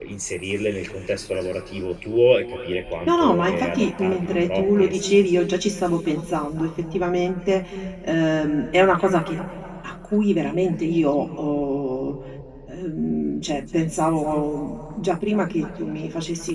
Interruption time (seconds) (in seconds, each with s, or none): 3.1 s